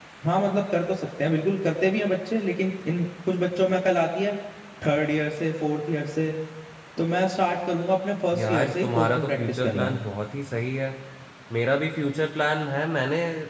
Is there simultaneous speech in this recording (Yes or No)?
Yes